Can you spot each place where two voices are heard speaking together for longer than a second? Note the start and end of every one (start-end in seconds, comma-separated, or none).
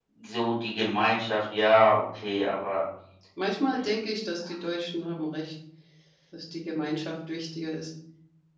none